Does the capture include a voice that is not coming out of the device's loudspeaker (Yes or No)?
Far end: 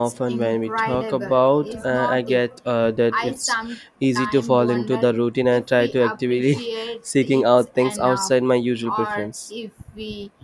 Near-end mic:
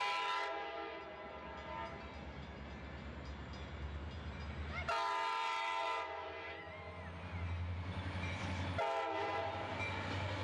No